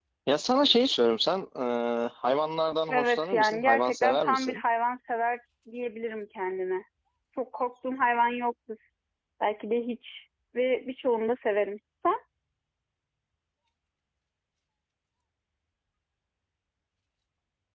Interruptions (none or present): present